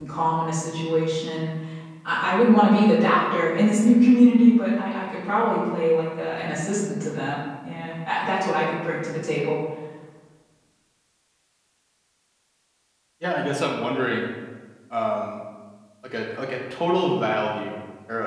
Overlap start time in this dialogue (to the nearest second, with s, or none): none